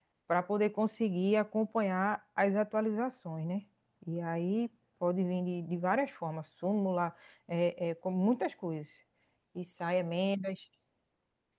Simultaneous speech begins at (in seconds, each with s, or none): none